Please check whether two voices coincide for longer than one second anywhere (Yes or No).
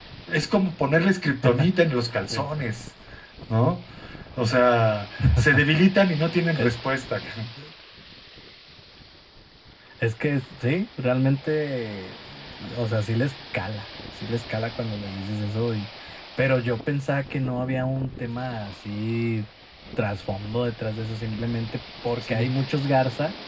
No